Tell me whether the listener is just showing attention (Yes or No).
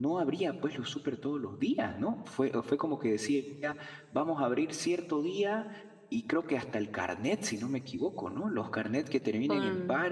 Yes